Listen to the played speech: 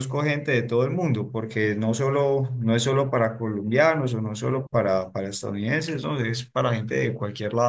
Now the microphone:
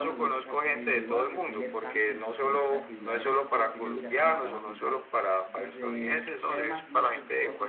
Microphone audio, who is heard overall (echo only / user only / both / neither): both